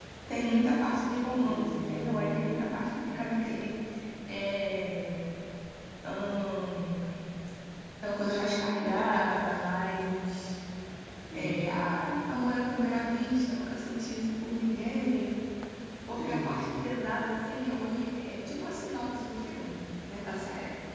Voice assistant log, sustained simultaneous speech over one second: present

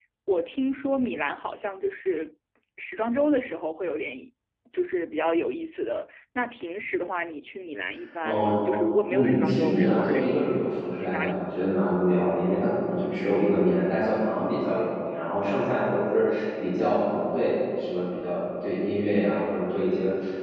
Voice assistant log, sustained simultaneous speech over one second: present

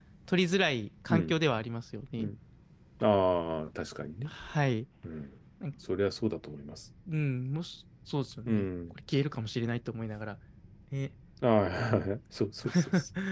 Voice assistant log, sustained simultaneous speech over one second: none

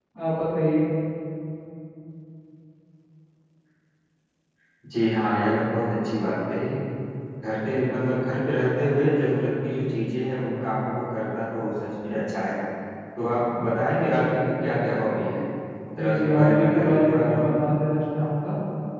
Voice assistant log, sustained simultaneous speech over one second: present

